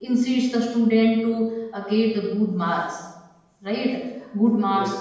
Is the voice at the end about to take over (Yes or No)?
No